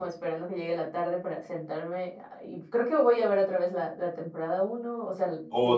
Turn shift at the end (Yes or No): Yes